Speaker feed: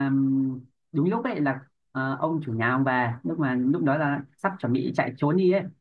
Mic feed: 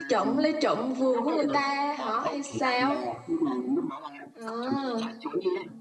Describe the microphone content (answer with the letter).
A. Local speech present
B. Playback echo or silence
A